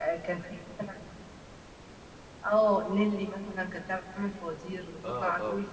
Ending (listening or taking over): listening